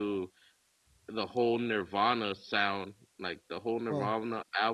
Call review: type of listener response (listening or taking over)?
listening